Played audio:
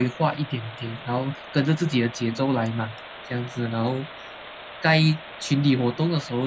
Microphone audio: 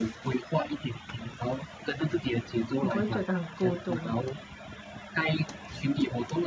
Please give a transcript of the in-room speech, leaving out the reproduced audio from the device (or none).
你不会觉得很孤独吗？